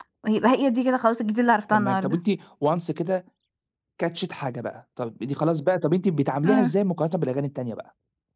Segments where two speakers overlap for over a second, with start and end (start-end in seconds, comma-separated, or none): none